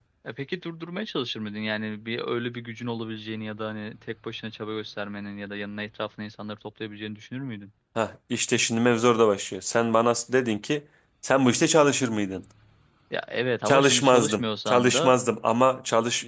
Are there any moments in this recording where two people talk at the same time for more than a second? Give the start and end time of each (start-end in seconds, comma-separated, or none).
13.6-15.1